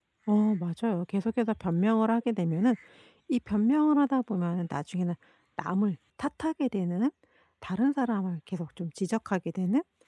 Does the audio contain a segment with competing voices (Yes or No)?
No